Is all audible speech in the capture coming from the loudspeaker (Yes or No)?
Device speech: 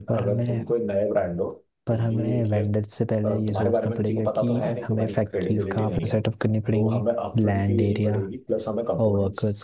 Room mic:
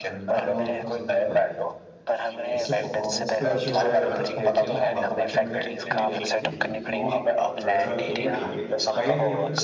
No